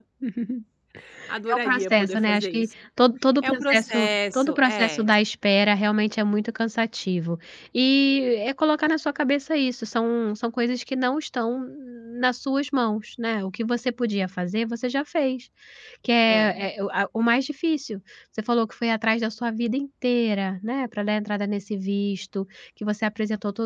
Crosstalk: present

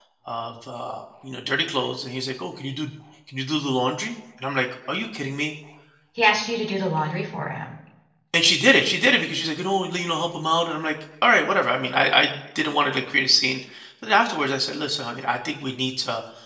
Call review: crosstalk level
none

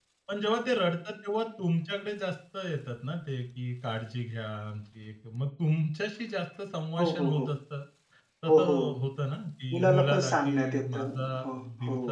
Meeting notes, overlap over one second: present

